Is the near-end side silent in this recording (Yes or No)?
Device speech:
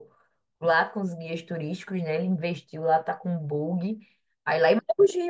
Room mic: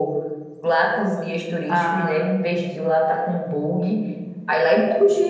No